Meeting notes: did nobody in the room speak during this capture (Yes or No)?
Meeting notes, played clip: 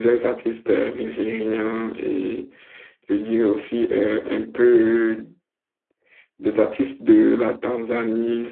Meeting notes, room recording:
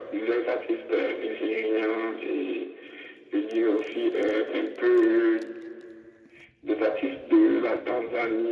Yes